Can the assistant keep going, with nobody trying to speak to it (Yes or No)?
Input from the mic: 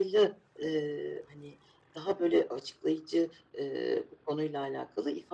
Yes